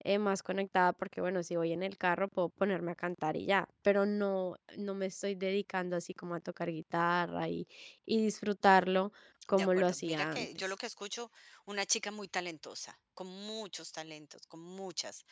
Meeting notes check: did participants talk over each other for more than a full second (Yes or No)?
Yes